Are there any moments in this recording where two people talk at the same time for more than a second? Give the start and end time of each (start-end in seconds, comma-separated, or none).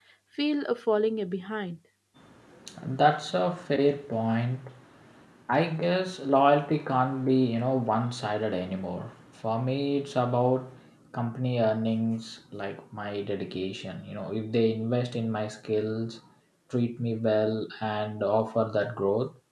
none